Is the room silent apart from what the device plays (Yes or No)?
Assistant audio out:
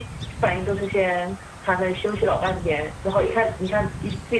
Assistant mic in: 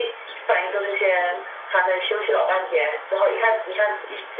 Yes